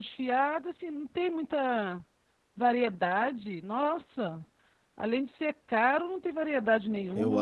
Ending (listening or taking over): taking over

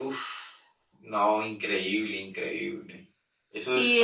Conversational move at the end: taking over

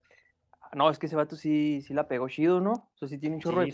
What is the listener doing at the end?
listening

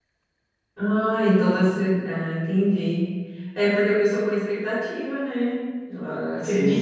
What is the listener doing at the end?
taking over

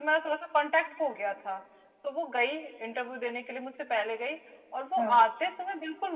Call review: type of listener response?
listening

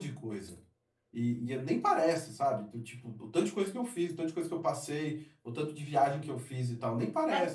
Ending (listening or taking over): taking over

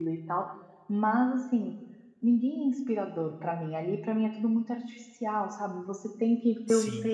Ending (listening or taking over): listening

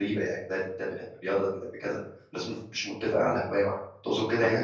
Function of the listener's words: taking over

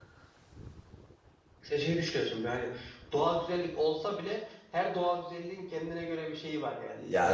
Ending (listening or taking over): taking over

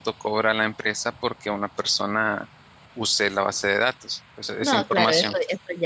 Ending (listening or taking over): taking over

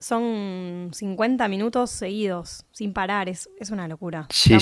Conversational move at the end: taking over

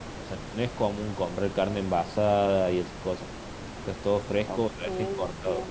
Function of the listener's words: taking over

